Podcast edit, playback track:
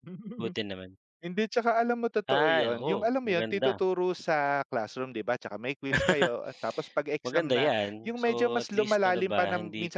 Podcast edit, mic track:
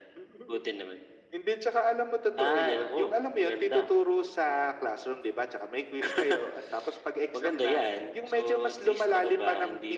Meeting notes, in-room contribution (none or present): none